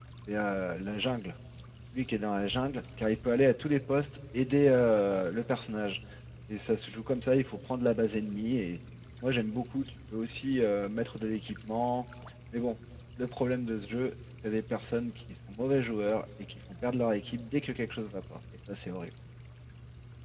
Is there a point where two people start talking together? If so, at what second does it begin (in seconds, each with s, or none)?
none